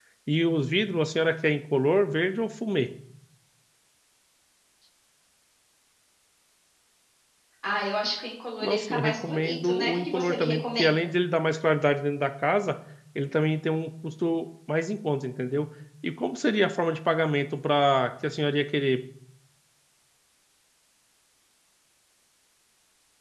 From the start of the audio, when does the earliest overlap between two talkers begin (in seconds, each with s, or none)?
8.6 s